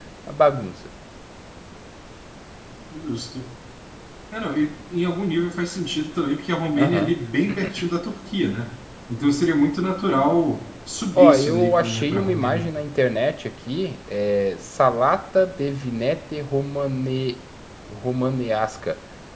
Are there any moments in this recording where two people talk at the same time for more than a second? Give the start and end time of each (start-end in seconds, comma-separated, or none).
11.2-12.7